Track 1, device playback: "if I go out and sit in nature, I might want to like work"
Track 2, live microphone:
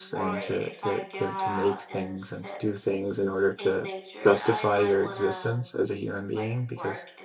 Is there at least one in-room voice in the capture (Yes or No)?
Yes